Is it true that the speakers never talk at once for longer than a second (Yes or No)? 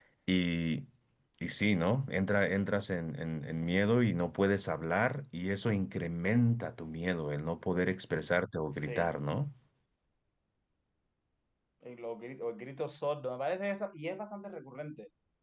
Yes